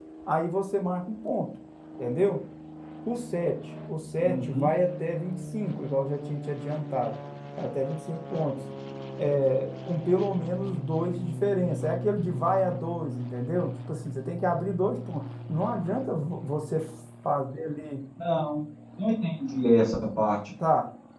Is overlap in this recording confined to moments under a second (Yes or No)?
Yes